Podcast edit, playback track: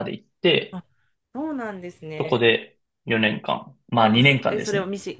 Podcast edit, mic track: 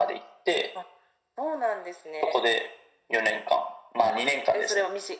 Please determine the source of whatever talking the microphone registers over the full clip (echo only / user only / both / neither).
echo only